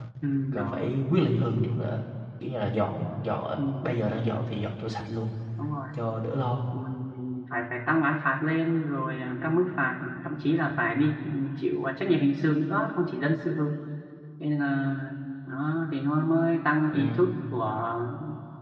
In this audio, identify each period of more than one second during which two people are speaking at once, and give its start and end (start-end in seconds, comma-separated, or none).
none